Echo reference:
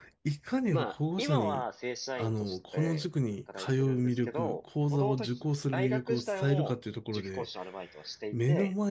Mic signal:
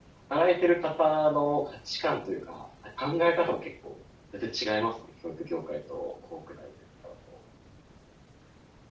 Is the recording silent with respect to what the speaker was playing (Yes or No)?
Yes